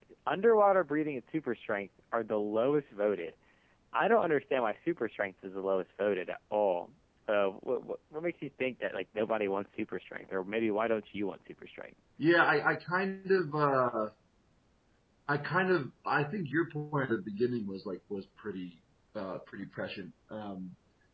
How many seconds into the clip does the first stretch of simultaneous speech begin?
none

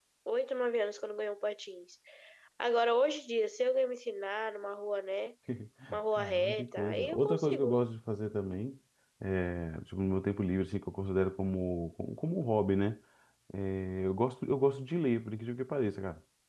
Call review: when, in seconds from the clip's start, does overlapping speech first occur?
6.2 s

